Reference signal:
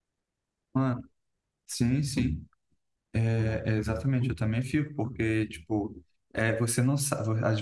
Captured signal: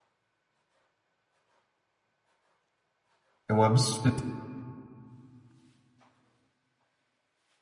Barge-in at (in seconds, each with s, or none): 3.5 s